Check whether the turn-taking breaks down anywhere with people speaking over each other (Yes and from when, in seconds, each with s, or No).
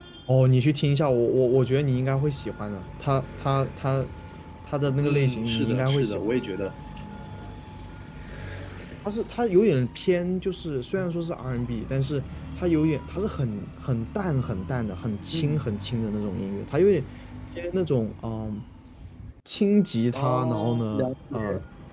Yes, from 5.0 s